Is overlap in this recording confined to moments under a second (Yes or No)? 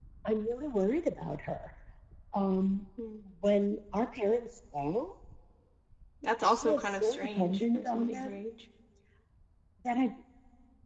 No